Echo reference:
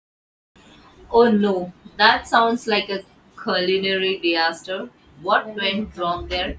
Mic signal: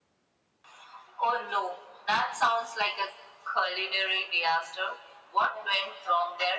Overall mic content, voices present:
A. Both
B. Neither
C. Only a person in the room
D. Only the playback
D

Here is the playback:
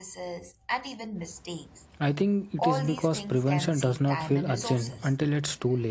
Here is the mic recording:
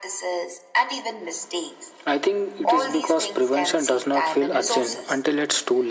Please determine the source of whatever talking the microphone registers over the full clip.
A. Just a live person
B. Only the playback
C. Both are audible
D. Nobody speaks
B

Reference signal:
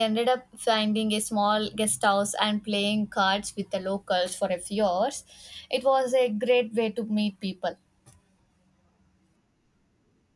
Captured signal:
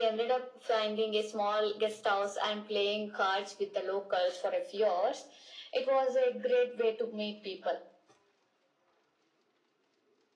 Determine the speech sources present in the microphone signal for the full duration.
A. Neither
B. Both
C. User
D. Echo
D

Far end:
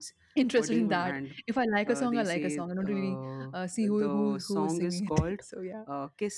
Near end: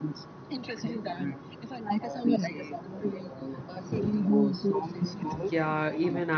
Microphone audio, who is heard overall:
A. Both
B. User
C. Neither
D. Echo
A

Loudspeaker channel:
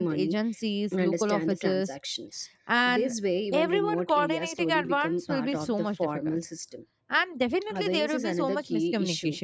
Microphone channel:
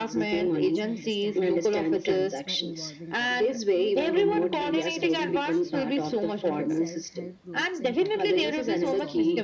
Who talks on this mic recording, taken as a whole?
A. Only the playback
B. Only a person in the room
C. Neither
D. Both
D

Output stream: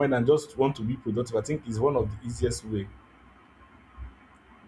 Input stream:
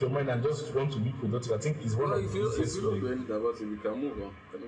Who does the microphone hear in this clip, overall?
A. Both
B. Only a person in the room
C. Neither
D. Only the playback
A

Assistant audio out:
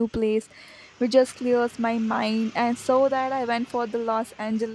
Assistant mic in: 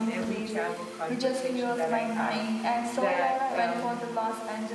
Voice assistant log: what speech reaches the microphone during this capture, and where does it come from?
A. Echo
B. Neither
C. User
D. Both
D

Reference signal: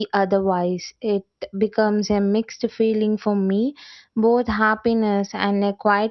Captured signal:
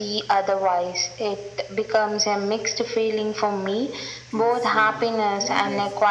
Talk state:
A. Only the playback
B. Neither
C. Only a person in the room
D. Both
D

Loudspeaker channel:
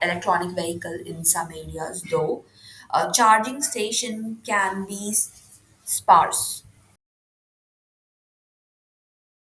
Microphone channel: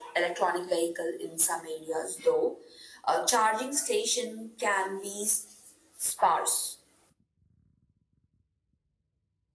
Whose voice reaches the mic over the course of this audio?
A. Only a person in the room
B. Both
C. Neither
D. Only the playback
D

